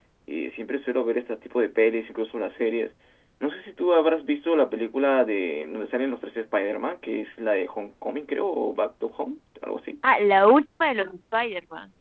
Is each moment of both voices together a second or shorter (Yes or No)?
Yes